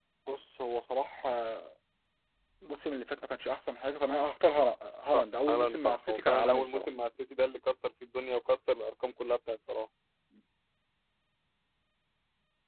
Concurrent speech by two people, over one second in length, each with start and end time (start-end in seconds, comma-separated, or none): 5.0-6.9